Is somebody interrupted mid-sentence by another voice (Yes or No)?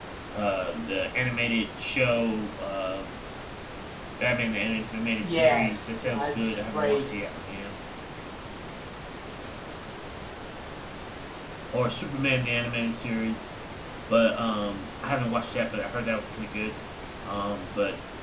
Yes